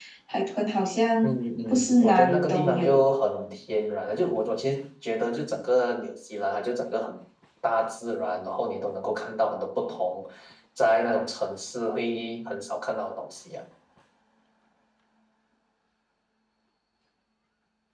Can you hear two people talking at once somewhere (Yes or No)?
Yes